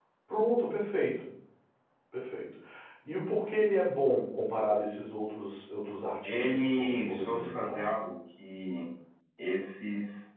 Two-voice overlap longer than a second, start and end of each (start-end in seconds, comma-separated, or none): 6.2-7.9